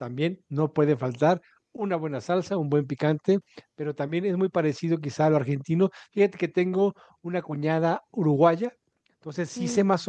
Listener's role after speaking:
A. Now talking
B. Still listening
B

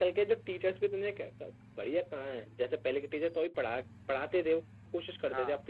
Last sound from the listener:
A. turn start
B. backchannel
B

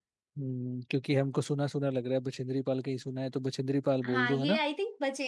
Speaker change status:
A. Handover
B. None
A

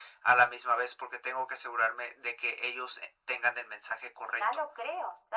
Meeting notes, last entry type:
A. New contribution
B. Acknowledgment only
A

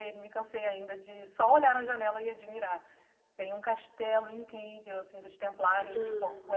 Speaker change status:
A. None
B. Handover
A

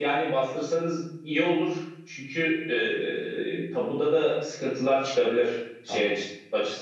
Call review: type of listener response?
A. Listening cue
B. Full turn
A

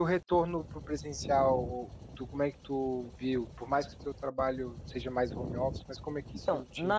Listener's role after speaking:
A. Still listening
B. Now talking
B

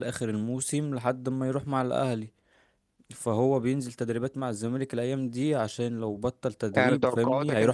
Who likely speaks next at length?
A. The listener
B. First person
A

